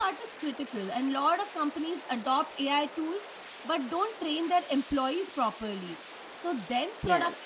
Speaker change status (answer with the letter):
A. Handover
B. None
B